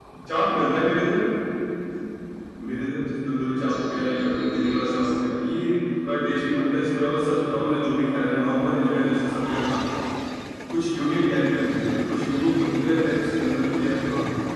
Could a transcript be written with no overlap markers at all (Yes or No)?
No